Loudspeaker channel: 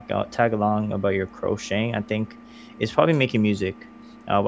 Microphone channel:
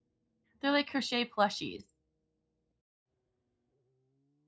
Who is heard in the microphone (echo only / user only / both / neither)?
user only